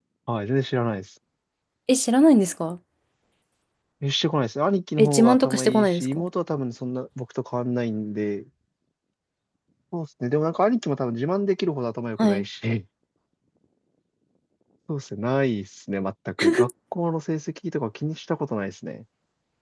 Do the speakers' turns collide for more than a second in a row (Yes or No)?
Yes